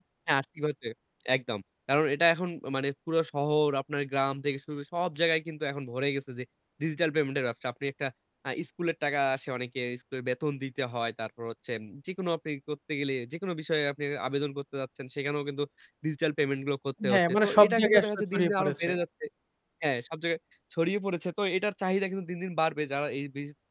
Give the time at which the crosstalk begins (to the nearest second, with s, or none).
17 s